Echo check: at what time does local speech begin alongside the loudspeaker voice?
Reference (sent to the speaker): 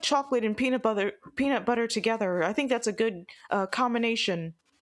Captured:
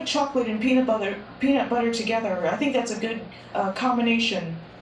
none

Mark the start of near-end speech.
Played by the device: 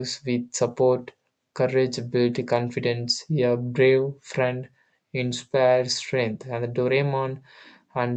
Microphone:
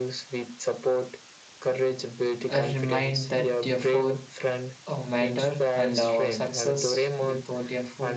2.6 s

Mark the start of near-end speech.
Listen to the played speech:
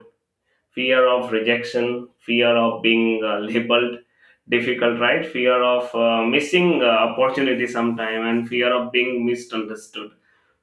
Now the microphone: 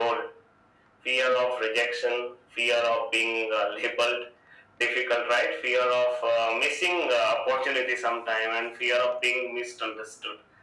none

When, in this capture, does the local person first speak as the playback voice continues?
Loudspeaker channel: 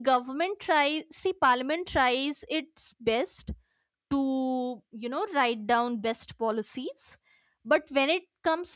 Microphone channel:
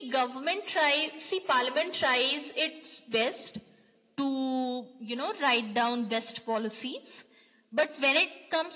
none

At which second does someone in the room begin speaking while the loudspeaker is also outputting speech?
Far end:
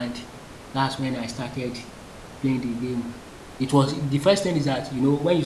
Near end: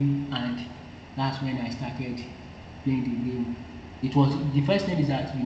none

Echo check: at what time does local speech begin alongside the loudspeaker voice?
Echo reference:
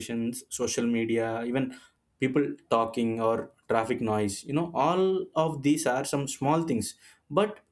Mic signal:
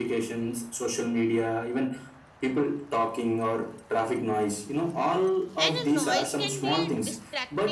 5.6 s

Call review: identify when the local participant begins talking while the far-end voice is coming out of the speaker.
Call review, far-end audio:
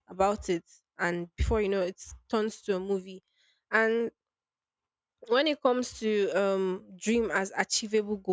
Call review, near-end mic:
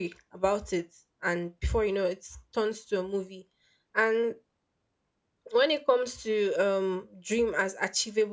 none

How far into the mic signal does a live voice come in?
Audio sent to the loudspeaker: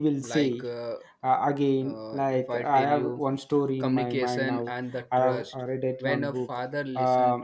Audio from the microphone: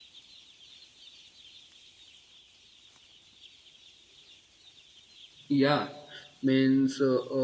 5.5 s

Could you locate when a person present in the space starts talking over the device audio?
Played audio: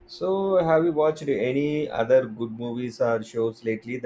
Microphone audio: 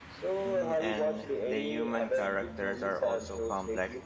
0.4 s

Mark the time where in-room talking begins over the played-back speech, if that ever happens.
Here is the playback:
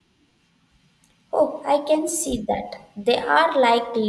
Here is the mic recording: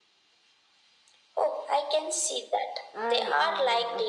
2.9 s

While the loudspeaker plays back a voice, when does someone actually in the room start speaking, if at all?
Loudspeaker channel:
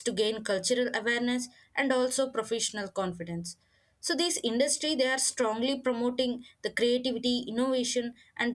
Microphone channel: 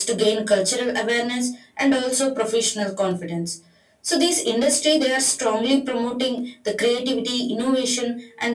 none

